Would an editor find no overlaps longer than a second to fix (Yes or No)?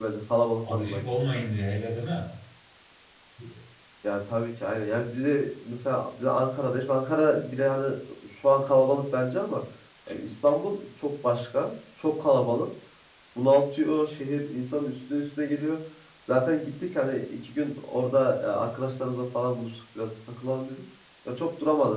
Yes